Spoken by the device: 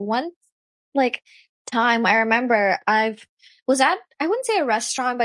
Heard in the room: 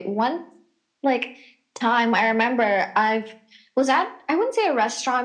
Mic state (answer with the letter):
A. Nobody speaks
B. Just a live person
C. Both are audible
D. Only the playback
D